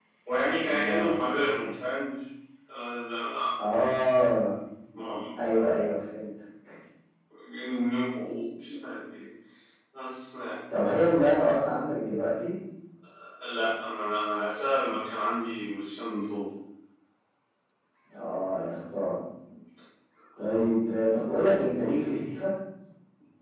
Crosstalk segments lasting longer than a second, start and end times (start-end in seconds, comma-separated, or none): none